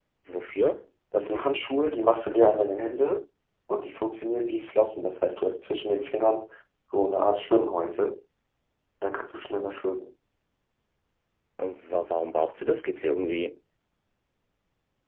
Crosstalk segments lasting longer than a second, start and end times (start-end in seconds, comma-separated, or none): none